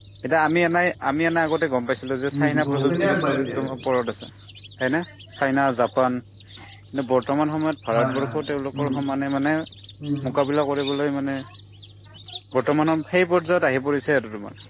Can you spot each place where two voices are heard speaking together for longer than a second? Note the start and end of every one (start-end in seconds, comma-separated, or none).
2.4-3.7